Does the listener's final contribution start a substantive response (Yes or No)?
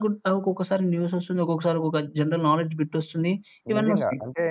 Yes